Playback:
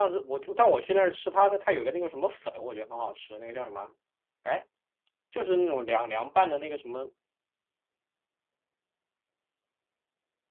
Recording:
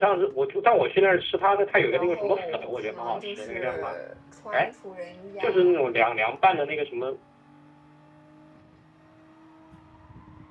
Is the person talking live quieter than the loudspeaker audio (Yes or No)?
Yes